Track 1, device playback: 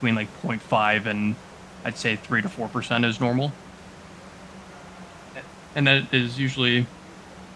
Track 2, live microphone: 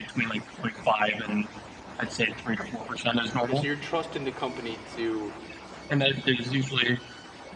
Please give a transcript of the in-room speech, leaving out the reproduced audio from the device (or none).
Because you're trusting the company to